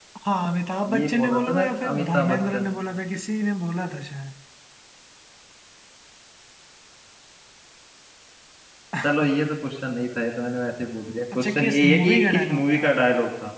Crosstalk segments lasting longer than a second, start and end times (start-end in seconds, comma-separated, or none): 0.9-2.9, 11.3-12.8